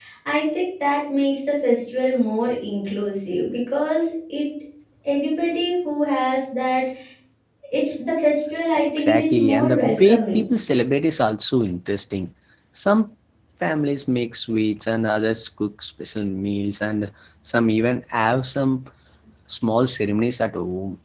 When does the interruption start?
8.8 s

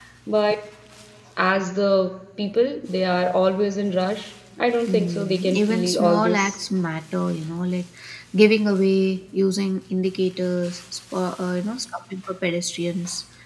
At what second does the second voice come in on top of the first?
4.9 s

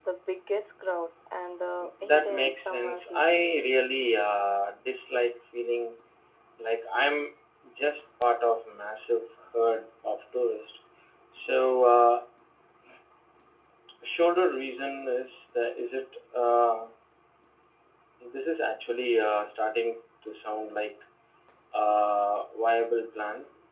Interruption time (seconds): 1.8 s

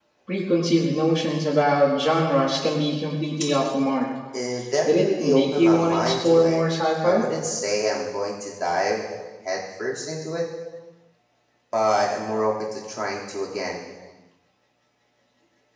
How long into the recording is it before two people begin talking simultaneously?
4.8 s

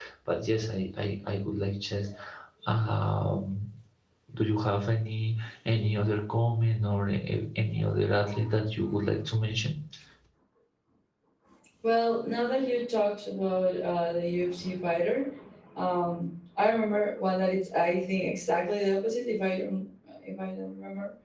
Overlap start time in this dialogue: none

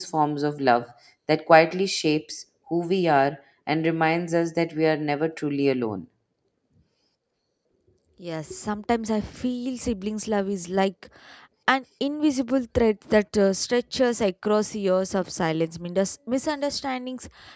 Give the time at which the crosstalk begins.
none

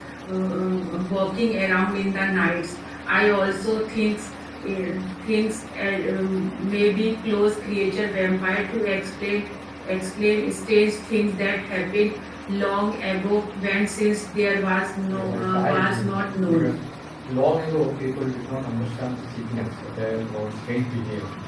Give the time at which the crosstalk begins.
15.1 s

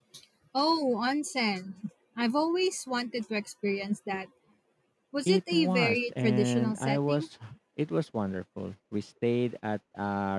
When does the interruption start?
5.3 s

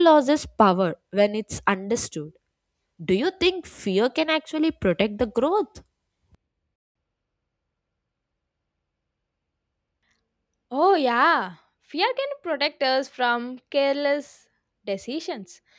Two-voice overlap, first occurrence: none

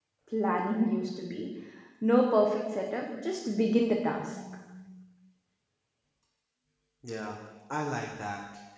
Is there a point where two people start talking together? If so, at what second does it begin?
none

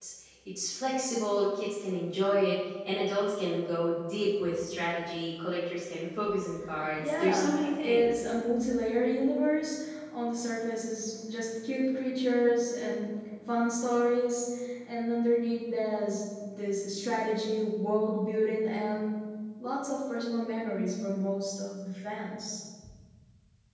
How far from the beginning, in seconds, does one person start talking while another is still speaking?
7.0 s

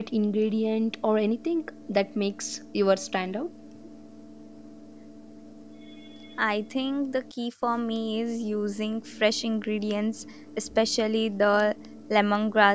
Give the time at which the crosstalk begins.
none

